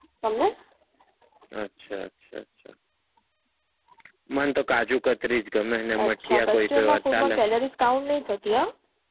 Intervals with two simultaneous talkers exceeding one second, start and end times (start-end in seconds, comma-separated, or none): 6.0-7.4